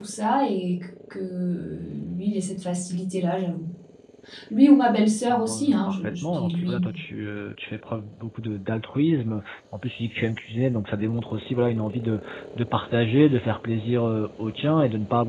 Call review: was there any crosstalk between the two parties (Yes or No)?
Yes